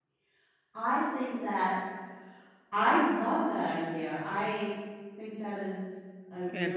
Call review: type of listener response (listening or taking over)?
taking over